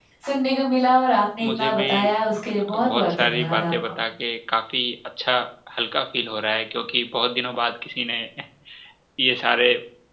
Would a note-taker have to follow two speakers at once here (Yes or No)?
Yes